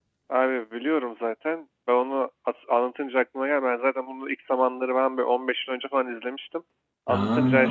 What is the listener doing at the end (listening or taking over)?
listening